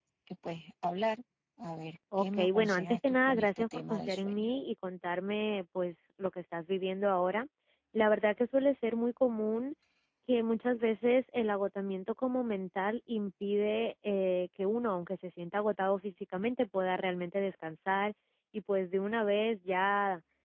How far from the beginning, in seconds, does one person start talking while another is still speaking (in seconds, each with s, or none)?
2.1 s